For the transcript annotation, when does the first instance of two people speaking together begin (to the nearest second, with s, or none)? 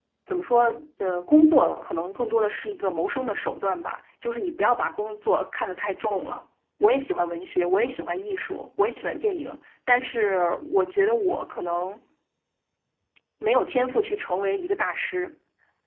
none